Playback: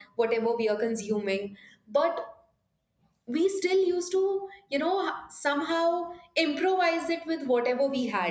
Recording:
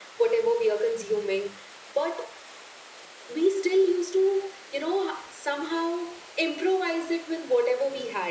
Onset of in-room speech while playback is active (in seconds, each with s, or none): none